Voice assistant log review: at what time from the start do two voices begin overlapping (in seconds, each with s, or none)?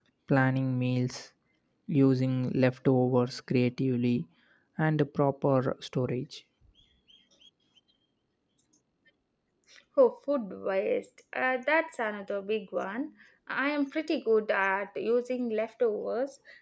none